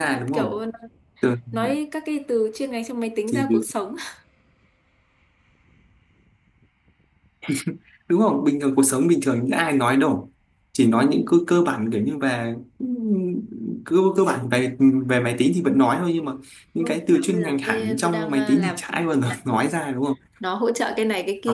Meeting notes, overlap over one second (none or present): present